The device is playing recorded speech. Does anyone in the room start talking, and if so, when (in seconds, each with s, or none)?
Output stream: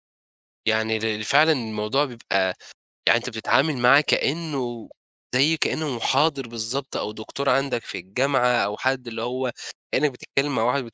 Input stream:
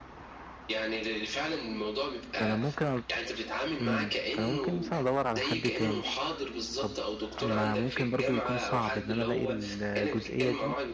2.3 s